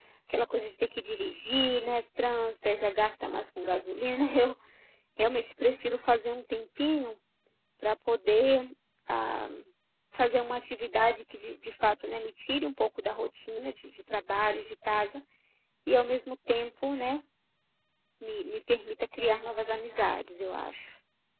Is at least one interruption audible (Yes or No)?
No